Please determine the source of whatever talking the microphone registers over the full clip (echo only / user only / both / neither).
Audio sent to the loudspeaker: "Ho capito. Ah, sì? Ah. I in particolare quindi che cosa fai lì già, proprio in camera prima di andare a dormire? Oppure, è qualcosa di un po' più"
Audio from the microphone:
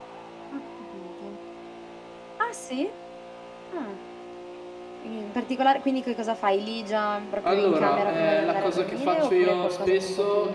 both